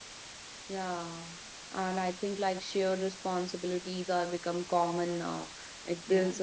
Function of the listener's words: listening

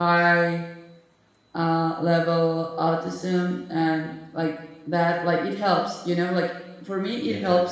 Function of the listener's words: listening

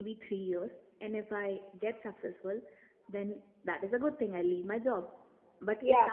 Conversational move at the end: listening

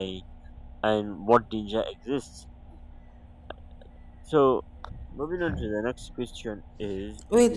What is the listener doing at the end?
taking over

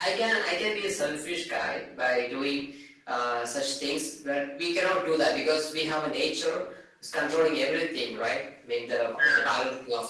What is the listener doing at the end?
listening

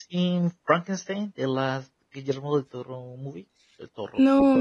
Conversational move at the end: taking over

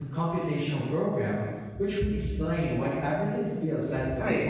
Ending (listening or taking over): taking over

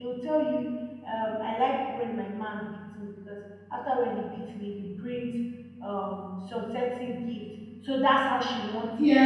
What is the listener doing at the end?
taking over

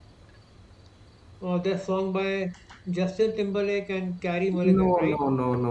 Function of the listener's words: taking over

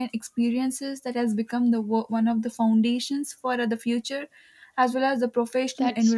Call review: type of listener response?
taking over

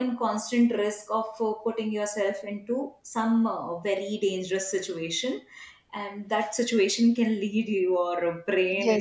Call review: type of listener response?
taking over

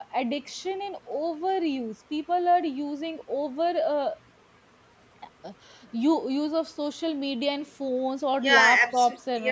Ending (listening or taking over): taking over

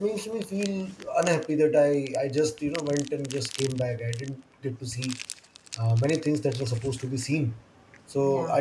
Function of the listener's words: listening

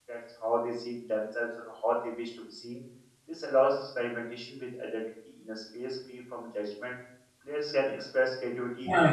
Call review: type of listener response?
taking over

